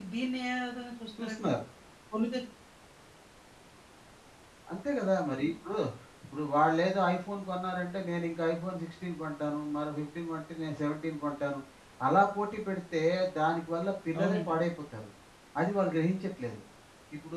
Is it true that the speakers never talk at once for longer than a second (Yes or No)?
Yes